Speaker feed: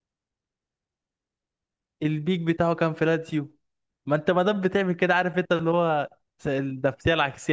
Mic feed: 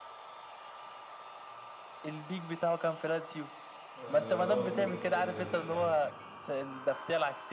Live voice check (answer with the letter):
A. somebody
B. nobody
A